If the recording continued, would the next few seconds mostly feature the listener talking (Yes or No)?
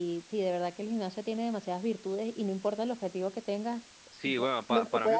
Yes